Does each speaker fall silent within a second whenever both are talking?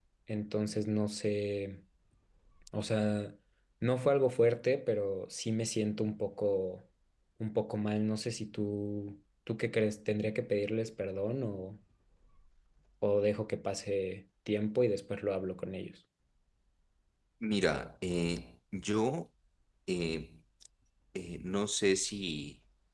Yes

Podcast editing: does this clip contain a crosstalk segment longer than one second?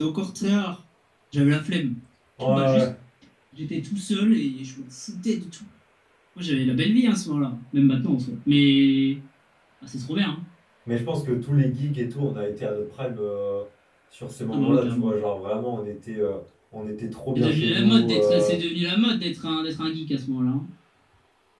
Yes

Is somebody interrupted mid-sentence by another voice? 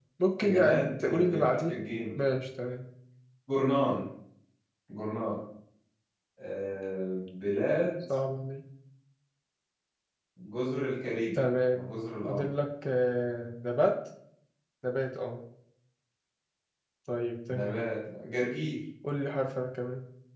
Yes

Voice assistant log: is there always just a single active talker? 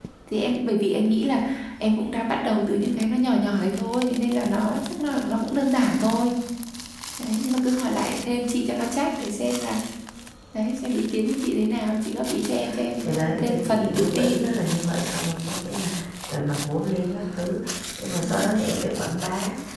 No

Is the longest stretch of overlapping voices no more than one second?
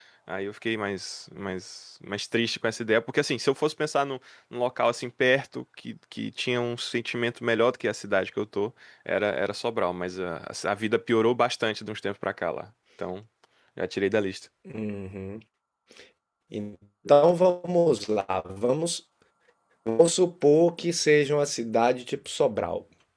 Yes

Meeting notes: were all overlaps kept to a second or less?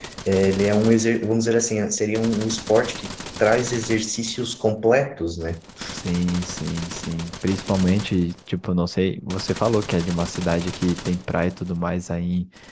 Yes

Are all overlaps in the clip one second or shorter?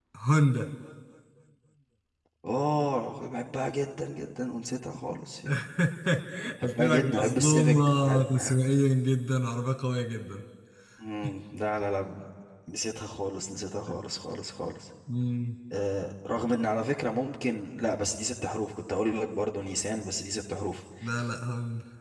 No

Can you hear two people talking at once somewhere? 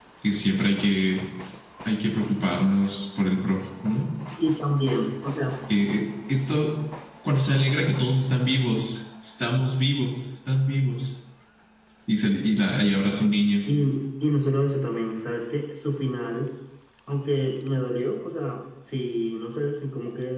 No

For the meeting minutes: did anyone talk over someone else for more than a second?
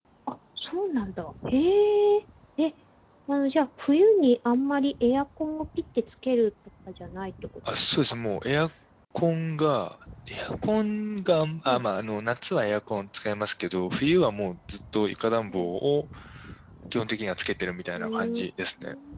No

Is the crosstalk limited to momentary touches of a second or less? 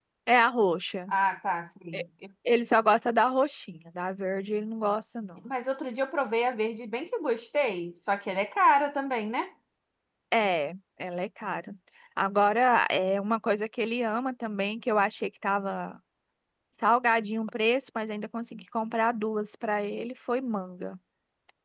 Yes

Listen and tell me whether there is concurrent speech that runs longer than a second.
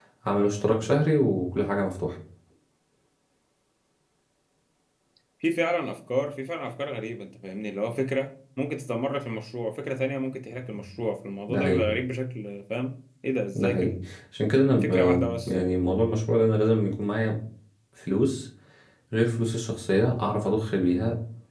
No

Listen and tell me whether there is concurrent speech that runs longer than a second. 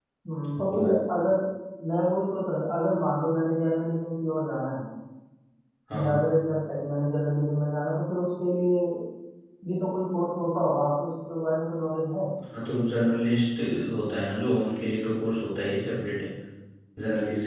No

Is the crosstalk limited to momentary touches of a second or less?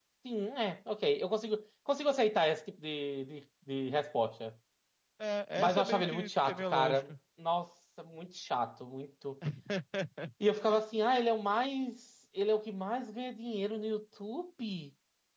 No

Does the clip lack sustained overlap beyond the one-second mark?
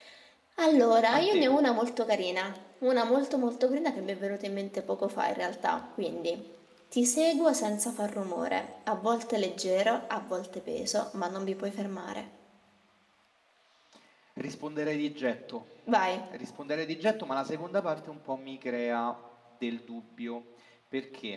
Yes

